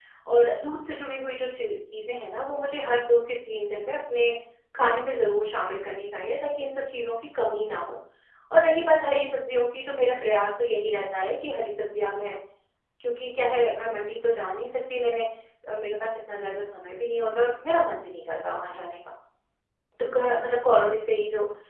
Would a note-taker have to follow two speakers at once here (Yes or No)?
No